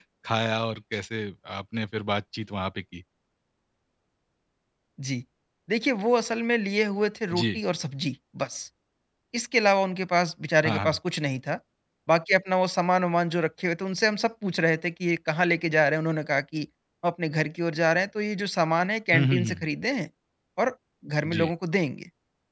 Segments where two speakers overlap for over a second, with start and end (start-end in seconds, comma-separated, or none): none